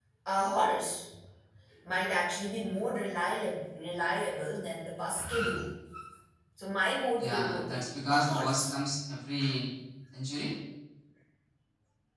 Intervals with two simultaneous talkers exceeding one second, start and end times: 7.2-8.7

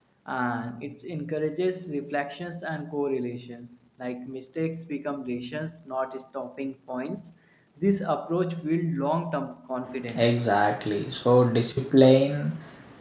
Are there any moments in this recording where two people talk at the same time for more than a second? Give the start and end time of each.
none

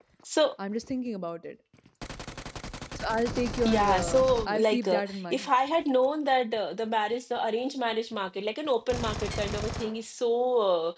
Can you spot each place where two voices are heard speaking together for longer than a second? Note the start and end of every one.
3.6-5.5

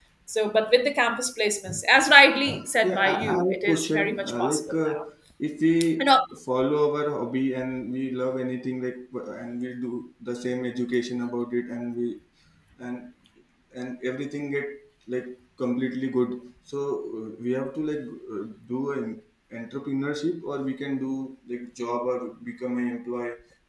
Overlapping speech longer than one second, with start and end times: 2.8-5.0

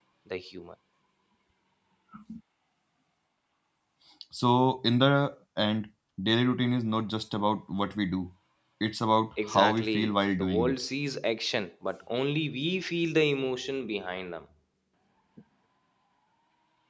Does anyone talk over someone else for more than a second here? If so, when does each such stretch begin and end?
9.5-10.8

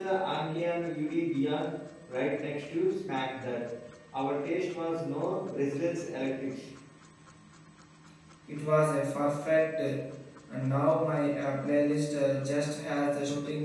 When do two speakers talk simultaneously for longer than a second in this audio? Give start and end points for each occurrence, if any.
none

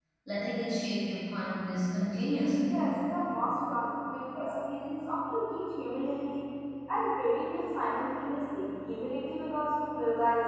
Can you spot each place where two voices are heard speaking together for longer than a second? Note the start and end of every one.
none

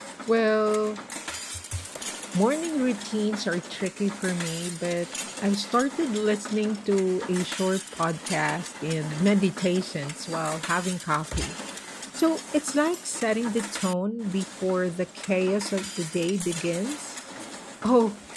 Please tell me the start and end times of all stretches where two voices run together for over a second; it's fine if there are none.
none

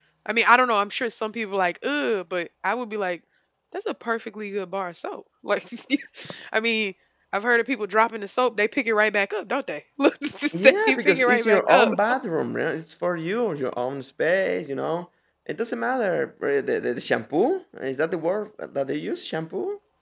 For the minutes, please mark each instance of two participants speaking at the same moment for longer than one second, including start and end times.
10.6-11.9

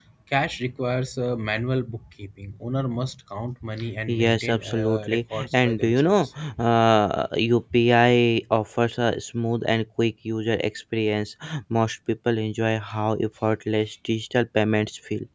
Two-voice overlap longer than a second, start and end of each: 4.1-6.3

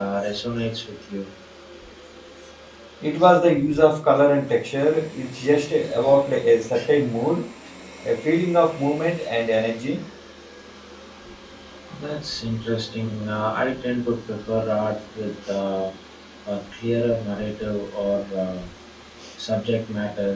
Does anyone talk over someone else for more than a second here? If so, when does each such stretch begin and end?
none

